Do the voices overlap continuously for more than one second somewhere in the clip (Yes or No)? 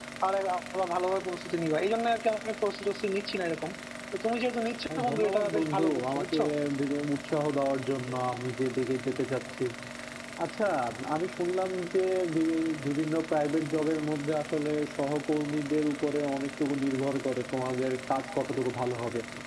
Yes